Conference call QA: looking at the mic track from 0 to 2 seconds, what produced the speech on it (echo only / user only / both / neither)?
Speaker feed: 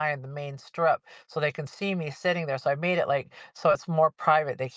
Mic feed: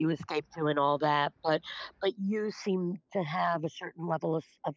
user only